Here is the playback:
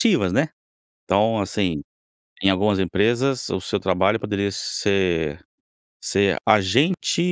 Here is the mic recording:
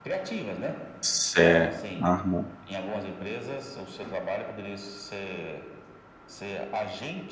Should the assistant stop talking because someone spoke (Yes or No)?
Yes